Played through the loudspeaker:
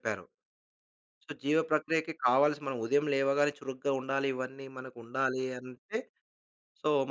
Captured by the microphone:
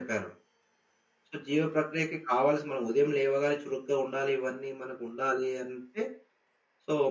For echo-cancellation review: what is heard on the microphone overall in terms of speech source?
echo only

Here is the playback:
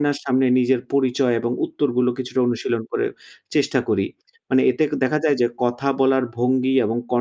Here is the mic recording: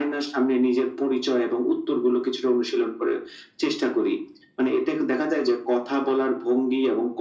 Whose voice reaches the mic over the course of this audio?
echo only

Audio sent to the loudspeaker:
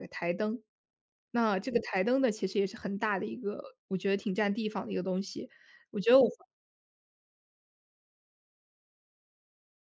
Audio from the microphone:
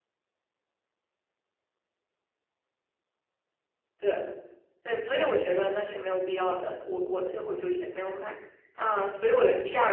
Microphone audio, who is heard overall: user only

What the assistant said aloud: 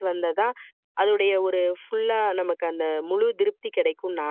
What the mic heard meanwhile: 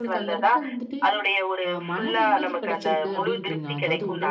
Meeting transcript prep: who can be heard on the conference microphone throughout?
both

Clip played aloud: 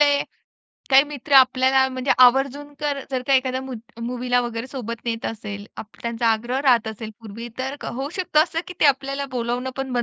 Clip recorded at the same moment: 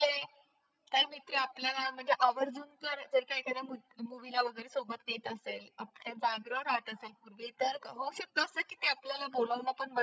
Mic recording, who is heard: echo only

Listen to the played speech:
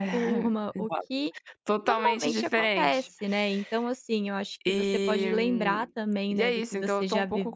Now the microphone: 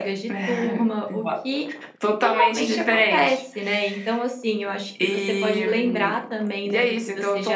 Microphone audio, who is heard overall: echo only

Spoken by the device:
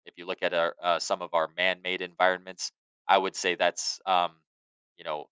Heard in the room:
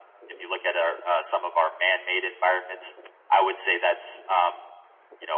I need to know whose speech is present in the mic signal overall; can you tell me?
echo only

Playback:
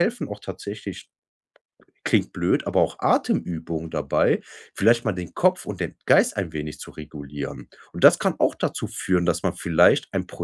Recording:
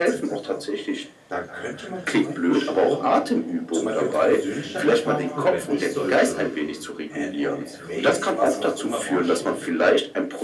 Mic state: both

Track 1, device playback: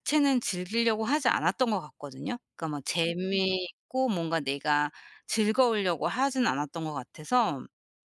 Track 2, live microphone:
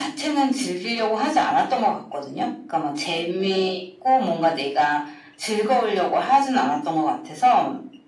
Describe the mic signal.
echo only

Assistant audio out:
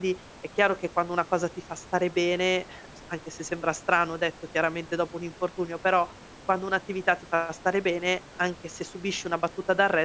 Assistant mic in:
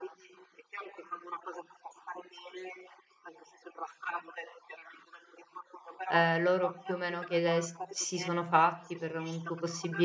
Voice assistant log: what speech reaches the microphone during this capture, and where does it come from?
both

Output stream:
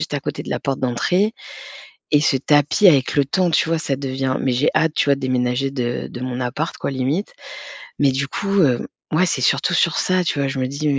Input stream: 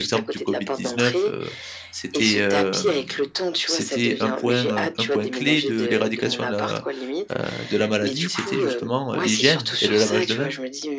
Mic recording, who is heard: both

